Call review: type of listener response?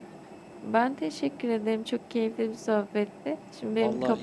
taking over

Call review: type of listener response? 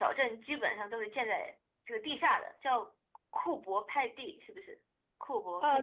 taking over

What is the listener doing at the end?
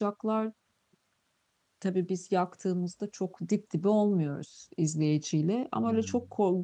listening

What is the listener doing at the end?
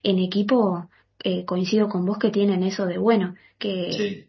listening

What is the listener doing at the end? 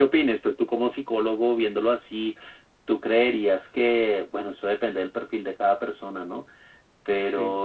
listening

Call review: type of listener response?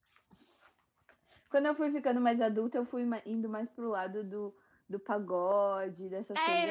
taking over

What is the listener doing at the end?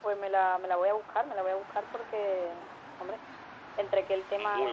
listening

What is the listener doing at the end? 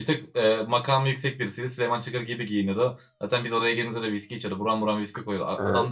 listening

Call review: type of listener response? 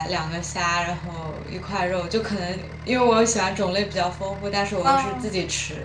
listening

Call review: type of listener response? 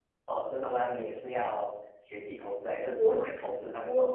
taking over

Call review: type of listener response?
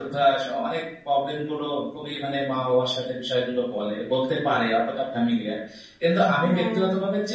listening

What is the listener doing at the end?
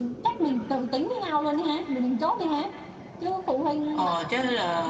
taking over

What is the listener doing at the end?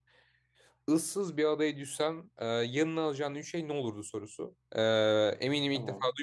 listening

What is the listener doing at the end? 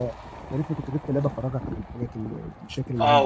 taking over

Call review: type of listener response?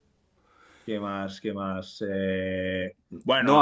listening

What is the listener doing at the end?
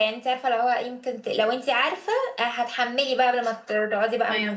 taking over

